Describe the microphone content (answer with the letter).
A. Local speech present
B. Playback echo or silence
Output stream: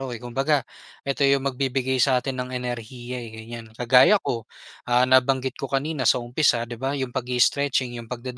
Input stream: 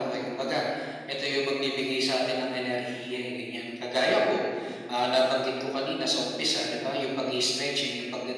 B